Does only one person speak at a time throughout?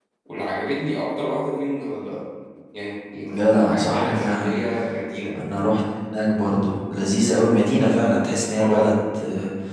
No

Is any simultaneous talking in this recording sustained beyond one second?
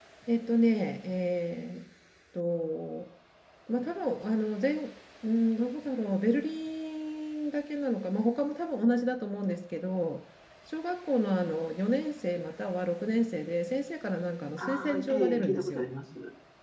Yes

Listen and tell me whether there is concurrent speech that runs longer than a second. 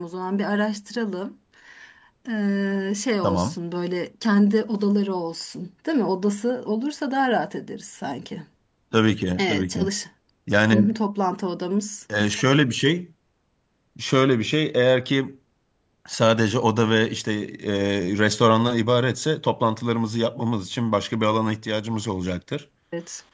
No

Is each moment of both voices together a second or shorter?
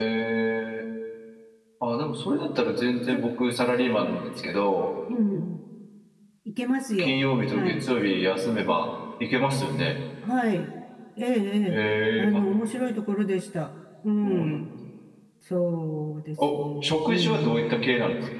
No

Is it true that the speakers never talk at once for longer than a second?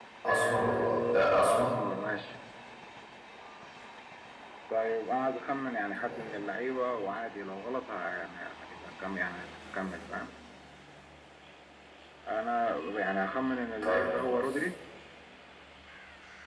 No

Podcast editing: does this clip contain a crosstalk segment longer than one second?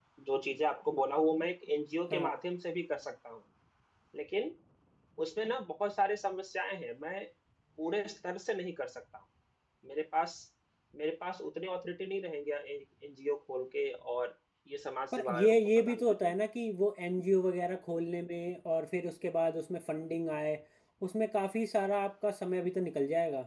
Yes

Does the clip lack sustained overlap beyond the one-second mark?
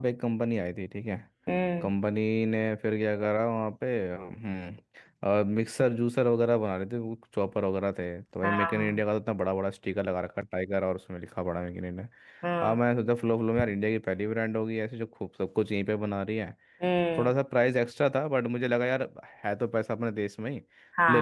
Yes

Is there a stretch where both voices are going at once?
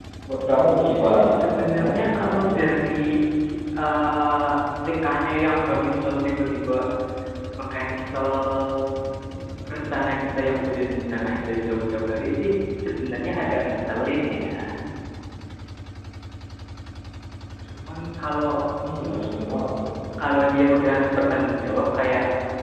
Yes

